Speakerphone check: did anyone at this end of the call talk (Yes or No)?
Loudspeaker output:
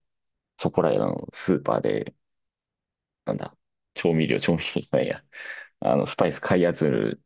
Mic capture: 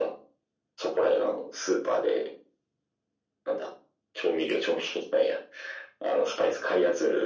No